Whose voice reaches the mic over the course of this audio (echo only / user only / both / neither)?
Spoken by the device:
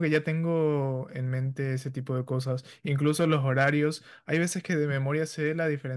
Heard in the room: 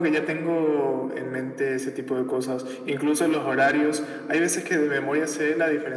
echo only